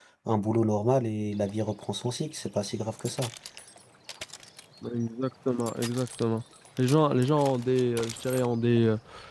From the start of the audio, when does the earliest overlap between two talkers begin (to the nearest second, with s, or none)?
none